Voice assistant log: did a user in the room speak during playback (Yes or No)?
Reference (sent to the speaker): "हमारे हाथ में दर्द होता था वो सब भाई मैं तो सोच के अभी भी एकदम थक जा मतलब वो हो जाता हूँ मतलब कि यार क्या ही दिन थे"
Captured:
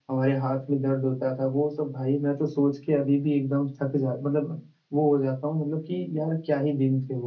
No